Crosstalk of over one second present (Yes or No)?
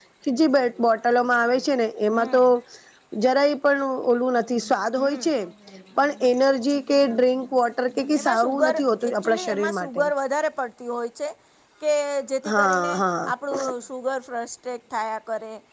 Yes